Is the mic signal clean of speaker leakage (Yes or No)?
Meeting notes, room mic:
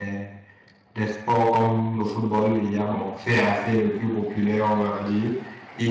Yes